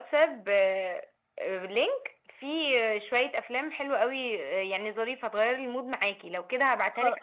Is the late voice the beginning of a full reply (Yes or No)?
No